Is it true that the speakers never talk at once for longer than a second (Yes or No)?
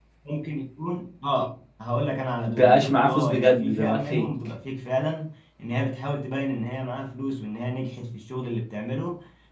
No